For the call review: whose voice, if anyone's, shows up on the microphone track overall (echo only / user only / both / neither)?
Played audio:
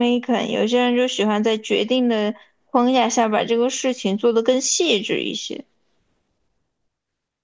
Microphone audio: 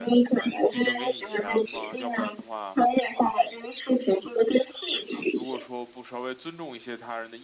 both